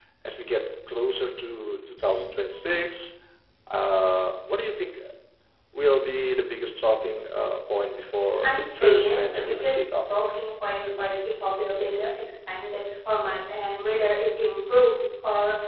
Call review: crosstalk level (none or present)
present